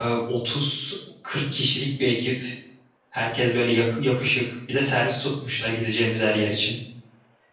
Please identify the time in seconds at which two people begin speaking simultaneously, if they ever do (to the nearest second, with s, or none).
none